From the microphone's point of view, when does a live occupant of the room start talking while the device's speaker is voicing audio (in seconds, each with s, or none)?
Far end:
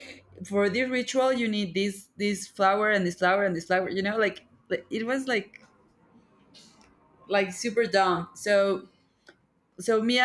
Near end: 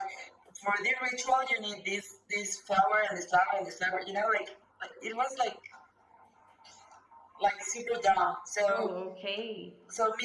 8.6 s